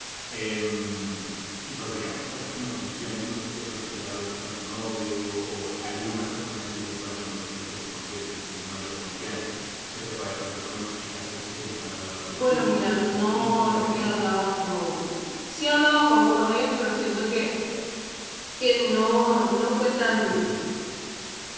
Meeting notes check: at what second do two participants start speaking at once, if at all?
12.3 s

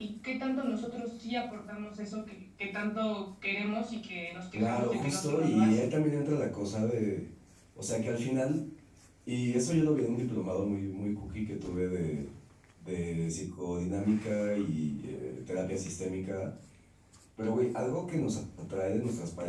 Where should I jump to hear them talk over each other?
4.5 s

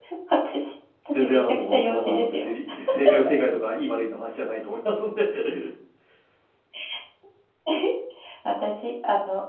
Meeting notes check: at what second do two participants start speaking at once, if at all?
1.1 s

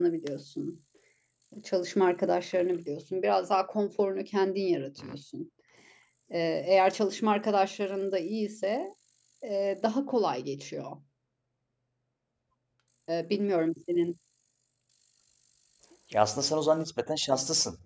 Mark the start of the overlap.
none

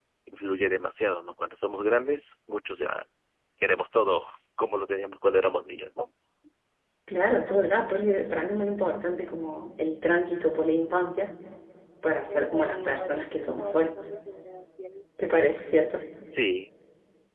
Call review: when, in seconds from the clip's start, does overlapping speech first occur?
12.3 s

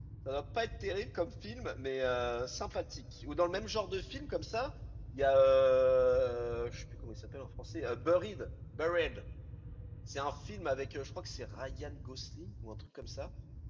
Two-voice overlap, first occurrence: none

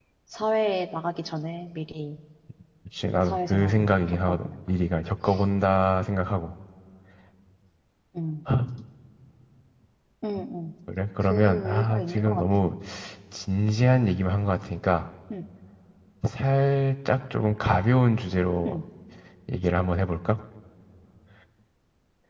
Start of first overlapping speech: 3.2 s

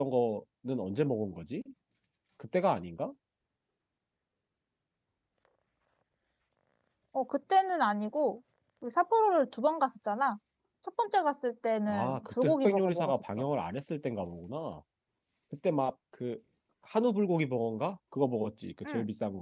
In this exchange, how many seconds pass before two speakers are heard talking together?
11.9 s

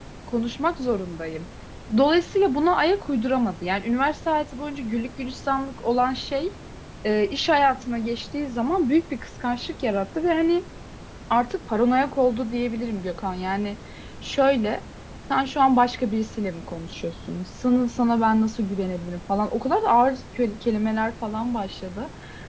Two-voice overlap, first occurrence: none

